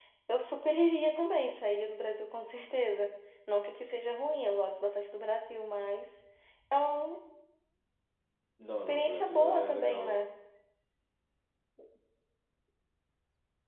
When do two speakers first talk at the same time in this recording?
8.8 s

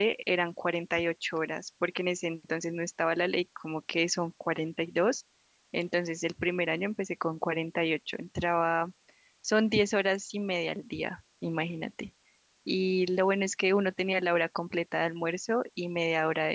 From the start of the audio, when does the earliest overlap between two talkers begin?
none

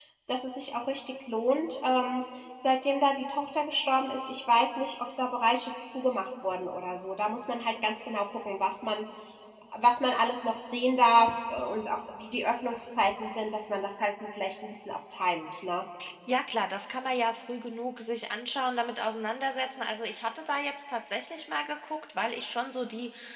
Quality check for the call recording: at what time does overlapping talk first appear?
none

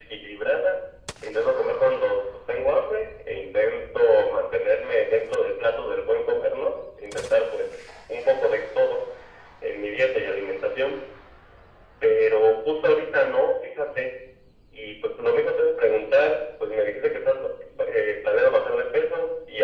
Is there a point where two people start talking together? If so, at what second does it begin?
none

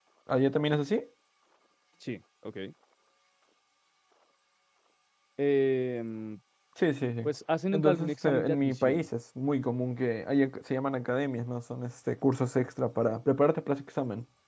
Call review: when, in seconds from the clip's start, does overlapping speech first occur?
7.7 s

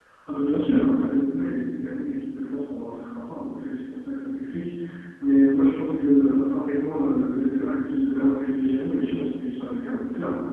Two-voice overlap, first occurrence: none

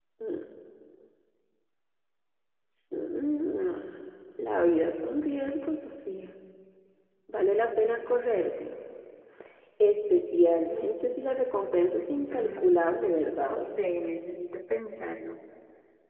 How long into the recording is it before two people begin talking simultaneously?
12.3 s

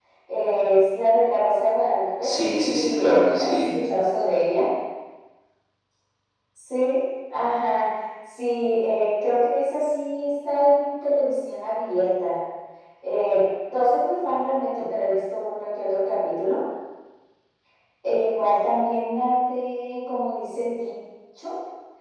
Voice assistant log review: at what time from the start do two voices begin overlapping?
2.2 s

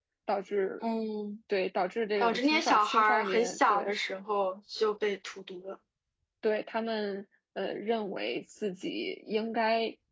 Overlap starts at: 2.2 s

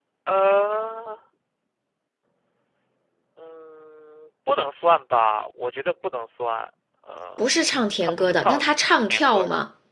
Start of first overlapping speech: 7.4 s

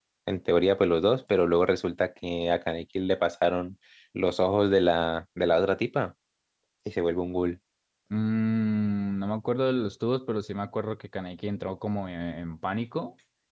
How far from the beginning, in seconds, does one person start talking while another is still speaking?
none

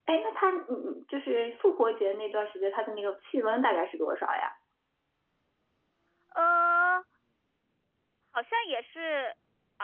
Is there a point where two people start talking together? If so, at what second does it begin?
none

